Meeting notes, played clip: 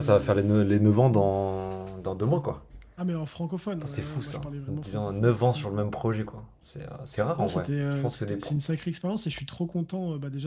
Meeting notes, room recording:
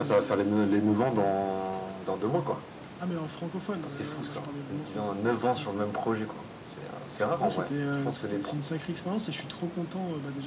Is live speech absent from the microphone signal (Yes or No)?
Yes